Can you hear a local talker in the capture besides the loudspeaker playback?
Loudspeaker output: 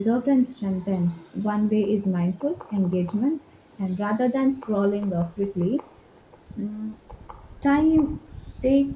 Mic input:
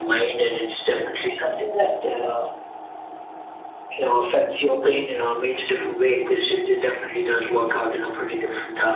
Yes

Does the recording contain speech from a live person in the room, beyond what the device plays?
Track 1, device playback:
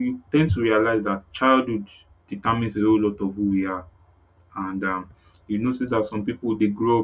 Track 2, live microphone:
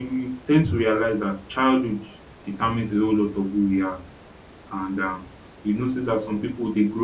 No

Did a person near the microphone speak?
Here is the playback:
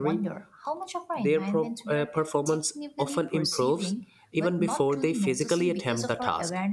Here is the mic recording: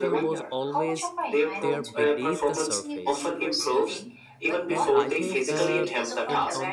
Yes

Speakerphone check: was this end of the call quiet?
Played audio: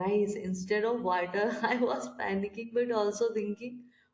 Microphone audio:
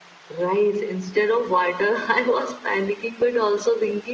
Yes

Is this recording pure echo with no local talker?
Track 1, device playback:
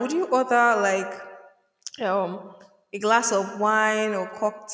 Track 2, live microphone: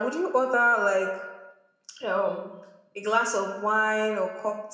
Yes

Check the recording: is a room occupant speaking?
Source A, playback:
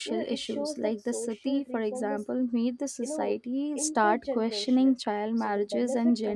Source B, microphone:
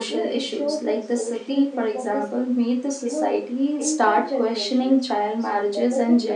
No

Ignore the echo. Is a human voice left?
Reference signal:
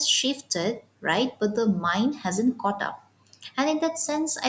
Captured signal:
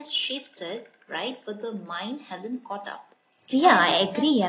Yes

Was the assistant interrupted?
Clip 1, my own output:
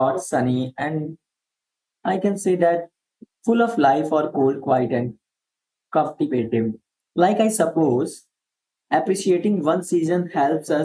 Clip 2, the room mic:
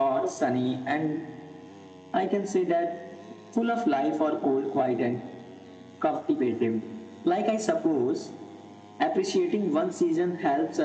No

